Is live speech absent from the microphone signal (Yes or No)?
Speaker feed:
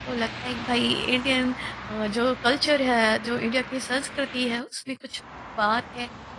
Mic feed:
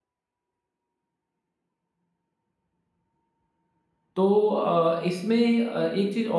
No